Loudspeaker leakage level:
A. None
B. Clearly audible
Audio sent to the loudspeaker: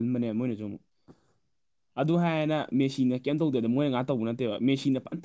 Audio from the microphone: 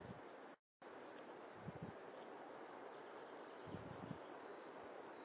A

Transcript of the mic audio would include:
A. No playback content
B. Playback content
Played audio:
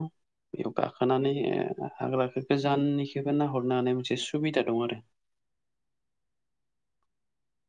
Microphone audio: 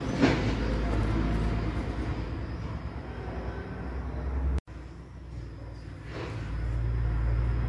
A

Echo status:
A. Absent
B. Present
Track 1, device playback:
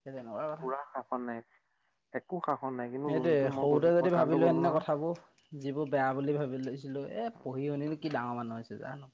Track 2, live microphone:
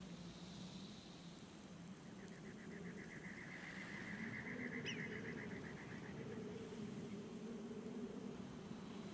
A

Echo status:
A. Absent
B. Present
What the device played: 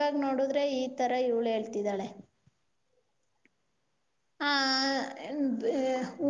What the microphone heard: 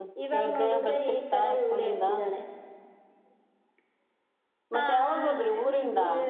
B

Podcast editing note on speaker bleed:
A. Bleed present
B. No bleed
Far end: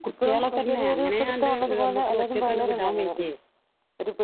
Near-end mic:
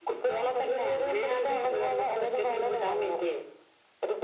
A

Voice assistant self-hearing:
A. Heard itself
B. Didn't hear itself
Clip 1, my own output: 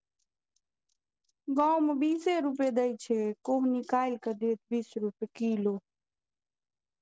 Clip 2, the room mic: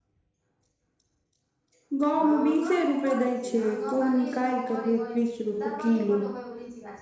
A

